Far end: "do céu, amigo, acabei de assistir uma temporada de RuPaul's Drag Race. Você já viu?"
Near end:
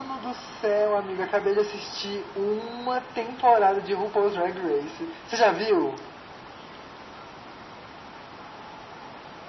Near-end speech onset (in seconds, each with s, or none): none